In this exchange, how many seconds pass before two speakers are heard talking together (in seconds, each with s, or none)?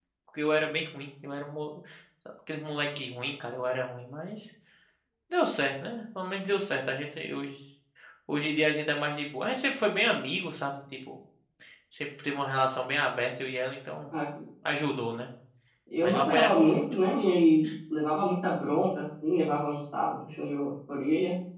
16.0 s